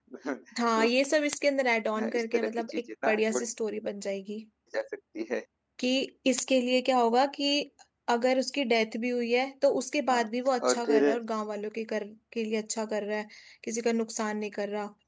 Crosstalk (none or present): present